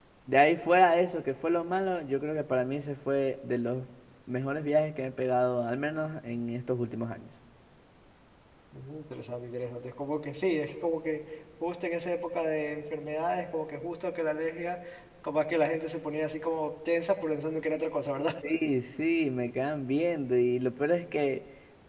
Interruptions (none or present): none